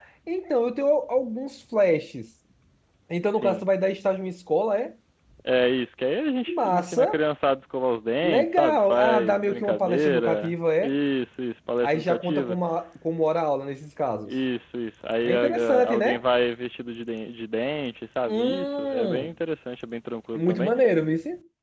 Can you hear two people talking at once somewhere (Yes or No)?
Yes